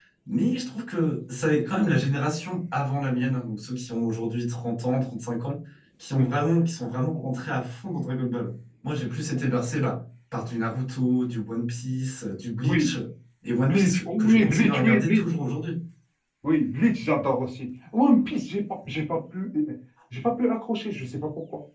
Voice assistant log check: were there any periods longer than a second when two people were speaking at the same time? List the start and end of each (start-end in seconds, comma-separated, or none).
13.6-15.2